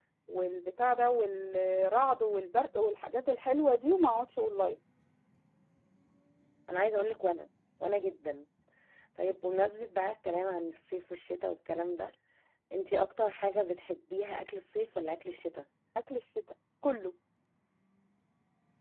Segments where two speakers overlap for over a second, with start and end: none

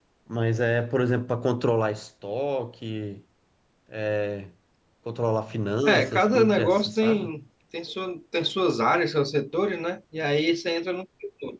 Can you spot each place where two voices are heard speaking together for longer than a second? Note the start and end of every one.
5.8-7.3

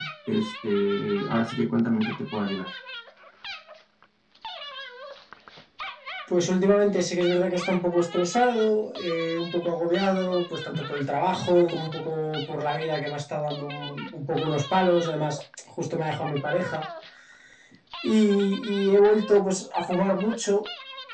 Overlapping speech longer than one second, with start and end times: none

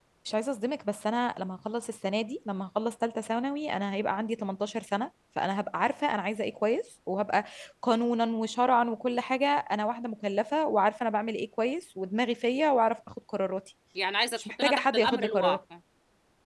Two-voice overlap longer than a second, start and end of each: 14.4-15.6

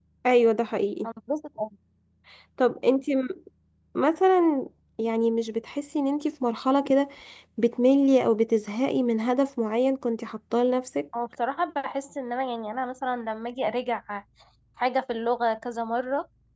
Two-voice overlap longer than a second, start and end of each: none

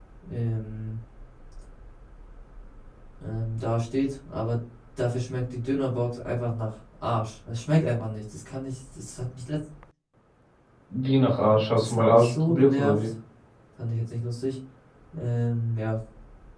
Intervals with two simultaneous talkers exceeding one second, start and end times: 11.8-13.1

